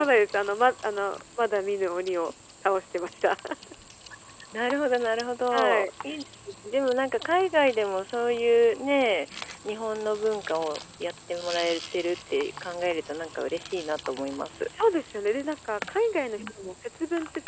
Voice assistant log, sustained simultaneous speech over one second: none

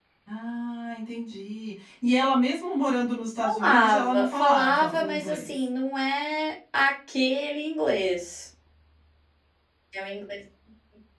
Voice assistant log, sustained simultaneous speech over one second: present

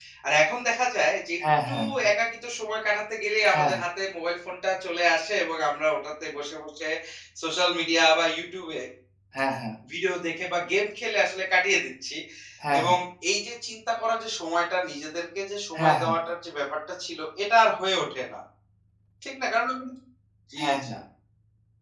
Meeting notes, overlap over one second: none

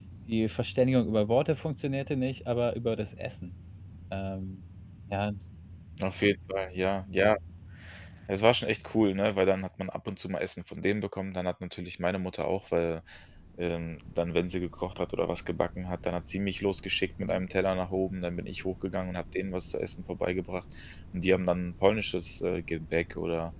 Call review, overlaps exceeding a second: none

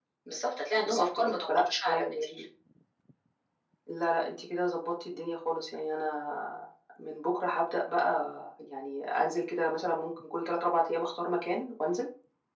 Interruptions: present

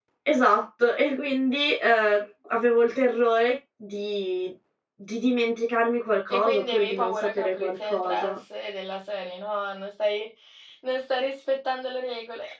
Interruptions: present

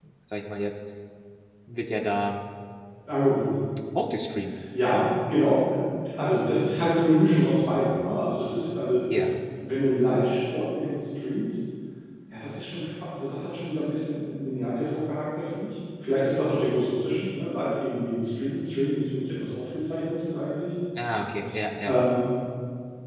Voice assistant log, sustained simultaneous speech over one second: none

